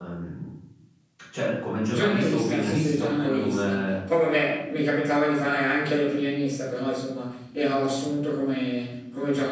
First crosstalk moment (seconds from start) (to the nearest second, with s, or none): 2 s